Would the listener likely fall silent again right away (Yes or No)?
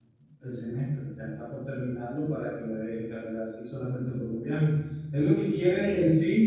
Yes